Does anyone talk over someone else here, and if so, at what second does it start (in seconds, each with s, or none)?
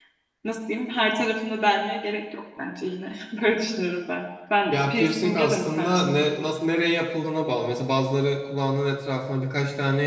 4.7 s